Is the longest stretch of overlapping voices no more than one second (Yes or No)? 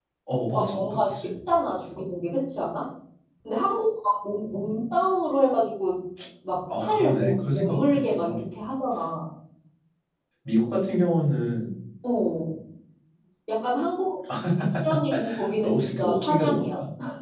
No